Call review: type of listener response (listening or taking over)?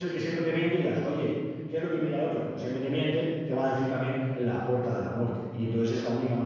listening